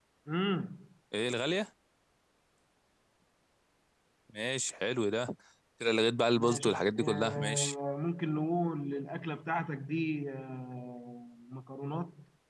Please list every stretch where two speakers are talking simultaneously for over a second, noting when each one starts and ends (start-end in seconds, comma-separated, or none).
6.3-7.7